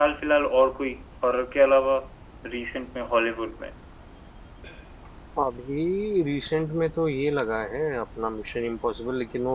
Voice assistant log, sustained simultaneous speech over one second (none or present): none